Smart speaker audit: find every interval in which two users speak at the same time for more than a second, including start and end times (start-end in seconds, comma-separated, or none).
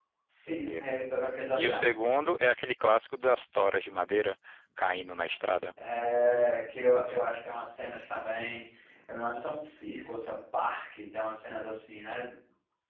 none